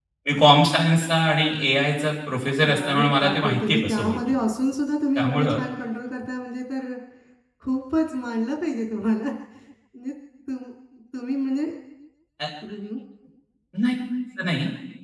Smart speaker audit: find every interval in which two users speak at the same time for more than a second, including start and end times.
2.6-4.2

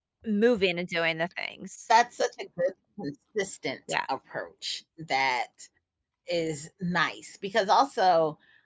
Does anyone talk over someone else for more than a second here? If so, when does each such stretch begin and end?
none

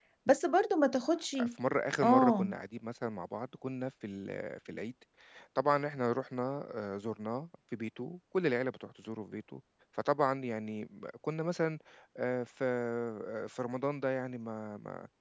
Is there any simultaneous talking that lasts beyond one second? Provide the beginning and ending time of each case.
none

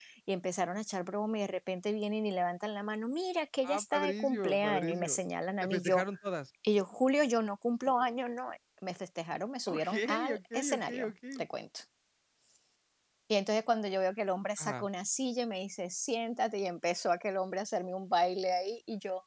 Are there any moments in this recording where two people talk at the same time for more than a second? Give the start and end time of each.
3.6-5.2, 9.7-11.4

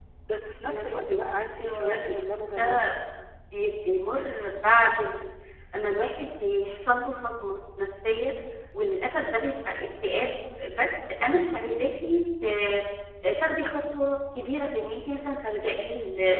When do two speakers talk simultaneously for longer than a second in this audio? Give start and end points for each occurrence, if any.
0.7-2.8

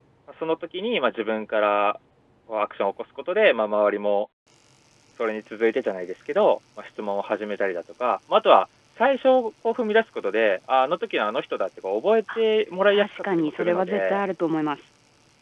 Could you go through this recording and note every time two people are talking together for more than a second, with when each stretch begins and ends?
12.9-14.2

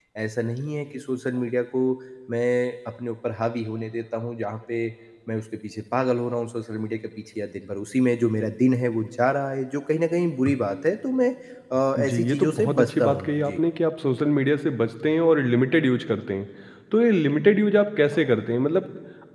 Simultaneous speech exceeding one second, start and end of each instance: 12.0-13.6

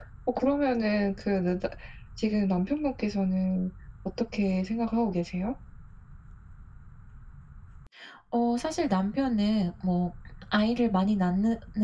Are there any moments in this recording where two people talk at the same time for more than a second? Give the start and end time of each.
none

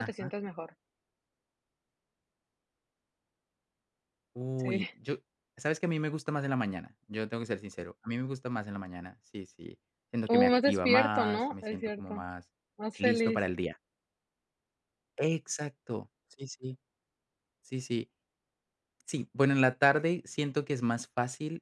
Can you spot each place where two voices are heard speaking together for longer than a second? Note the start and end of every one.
10.3-12.2

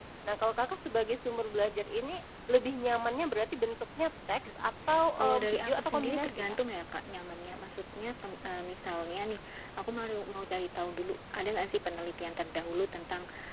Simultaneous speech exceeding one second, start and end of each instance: 5.2-6.6

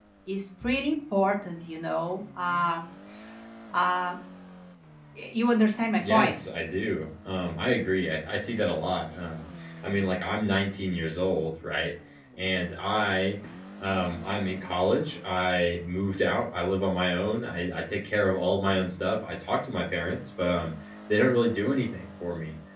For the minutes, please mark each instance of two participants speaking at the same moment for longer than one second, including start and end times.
none

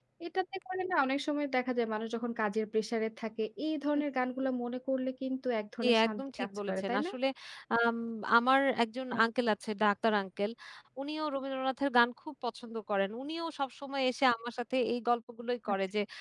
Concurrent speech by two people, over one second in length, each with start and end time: 5.8-7.1

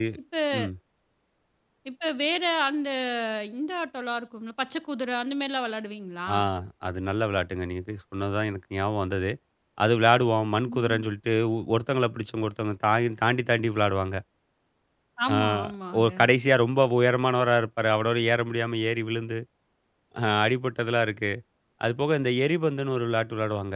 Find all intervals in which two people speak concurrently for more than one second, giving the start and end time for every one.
none

